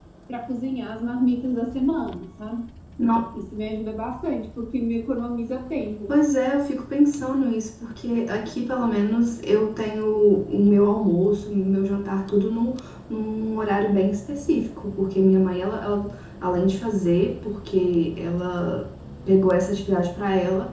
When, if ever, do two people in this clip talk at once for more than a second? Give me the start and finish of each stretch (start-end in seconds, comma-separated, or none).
none